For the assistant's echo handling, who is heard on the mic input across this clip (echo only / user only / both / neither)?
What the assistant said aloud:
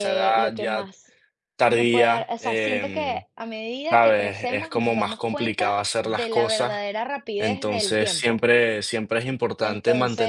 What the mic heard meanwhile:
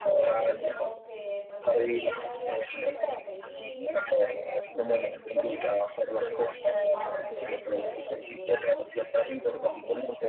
both